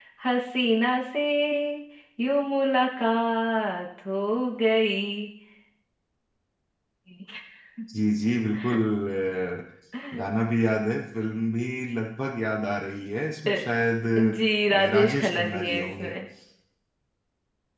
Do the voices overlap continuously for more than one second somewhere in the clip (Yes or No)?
Yes